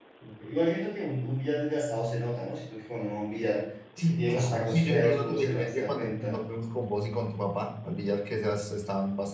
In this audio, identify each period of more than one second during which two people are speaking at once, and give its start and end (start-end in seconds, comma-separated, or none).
4.1-6.4